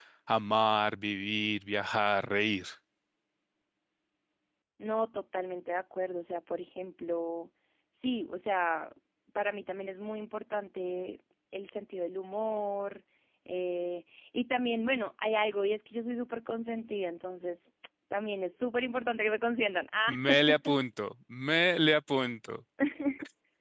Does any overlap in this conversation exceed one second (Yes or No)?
No